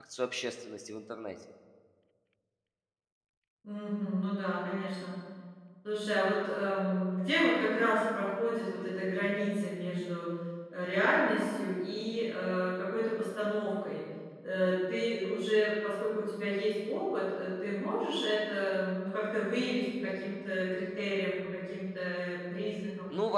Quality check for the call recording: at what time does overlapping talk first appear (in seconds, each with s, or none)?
none